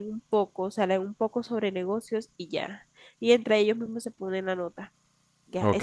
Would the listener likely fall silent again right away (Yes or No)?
No